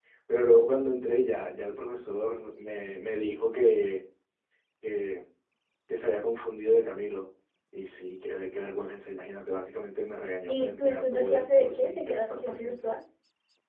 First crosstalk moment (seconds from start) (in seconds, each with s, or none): 10.5 s